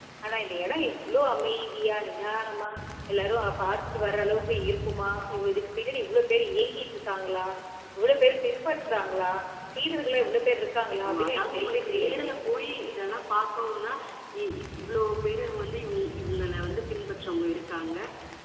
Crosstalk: present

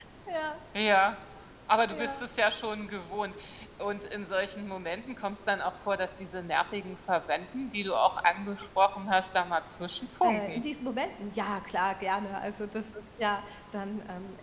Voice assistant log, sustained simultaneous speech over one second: none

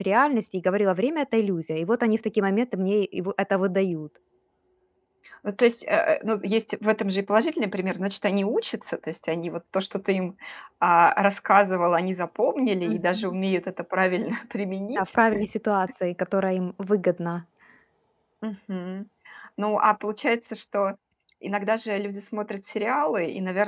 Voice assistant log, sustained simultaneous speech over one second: none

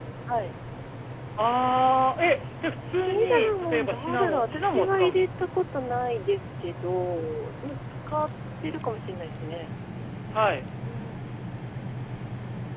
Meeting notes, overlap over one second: present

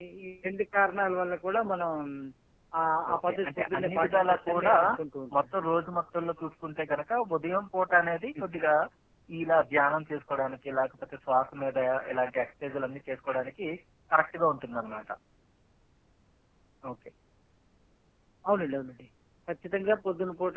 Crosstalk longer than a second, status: present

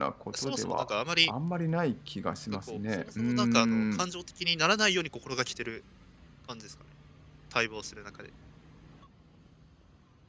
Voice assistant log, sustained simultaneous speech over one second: present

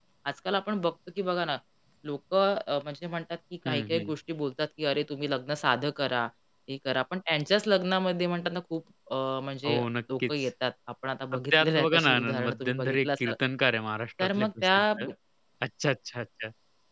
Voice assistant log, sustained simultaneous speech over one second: present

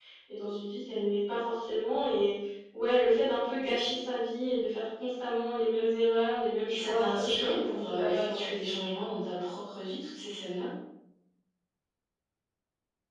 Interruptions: present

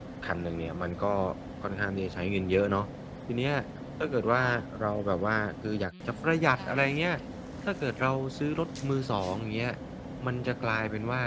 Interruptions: present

